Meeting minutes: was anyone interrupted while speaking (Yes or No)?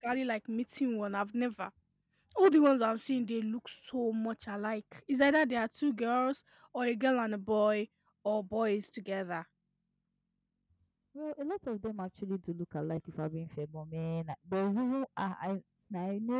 No